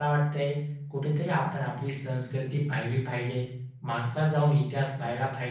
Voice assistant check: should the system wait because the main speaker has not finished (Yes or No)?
Yes